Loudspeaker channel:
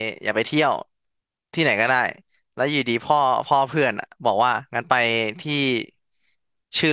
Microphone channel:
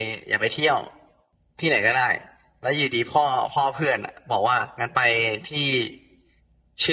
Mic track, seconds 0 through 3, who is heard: echo only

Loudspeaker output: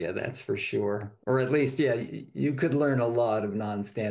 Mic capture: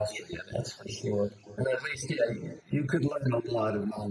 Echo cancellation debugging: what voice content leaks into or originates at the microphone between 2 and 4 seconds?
echo only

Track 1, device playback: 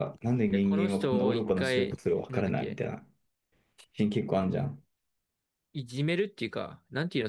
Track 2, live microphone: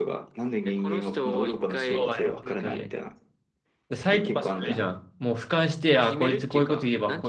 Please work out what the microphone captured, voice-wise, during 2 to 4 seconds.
both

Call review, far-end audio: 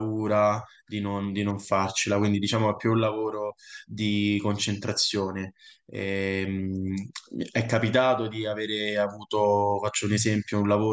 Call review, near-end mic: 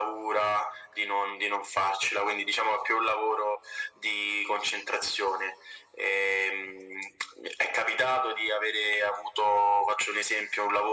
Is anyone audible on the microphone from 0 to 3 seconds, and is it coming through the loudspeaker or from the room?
echo only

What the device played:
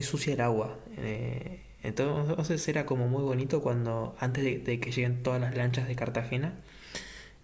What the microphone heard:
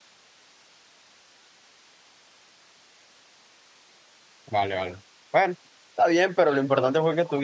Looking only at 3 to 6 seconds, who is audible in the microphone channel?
user only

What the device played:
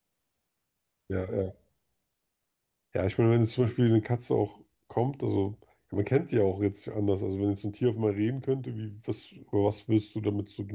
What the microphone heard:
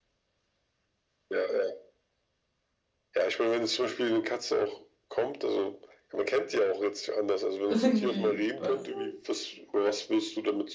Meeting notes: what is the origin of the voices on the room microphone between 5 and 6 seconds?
echo only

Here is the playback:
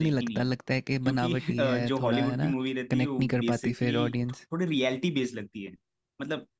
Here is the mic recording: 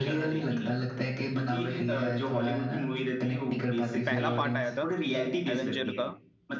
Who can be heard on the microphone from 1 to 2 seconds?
echo only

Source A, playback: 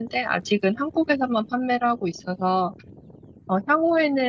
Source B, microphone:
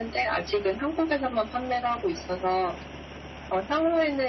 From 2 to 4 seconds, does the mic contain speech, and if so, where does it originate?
echo only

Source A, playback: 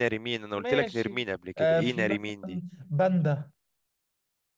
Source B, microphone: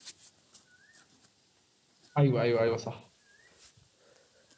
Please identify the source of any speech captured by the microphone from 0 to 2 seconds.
neither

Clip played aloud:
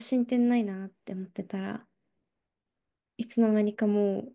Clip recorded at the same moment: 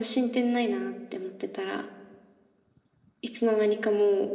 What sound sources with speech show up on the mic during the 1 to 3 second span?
echo only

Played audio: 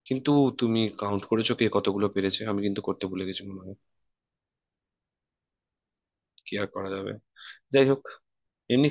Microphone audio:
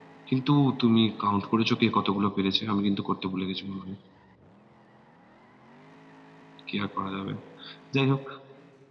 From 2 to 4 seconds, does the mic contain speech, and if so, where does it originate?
echo only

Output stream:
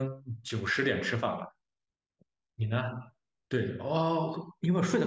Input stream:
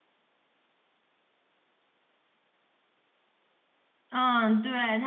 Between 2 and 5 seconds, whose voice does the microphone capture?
user only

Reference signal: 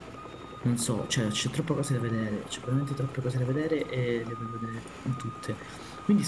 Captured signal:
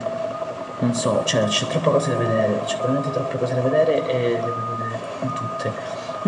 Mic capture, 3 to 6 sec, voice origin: echo only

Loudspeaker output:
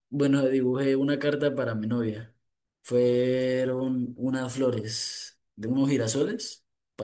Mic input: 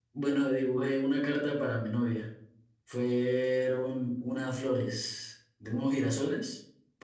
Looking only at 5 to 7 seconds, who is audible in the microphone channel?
echo only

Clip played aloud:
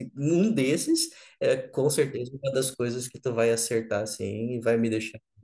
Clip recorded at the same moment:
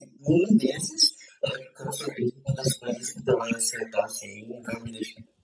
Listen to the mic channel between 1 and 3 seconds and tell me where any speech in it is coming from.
echo only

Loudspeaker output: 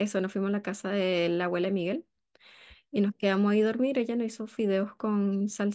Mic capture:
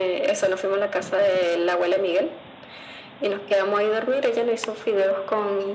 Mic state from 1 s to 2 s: echo only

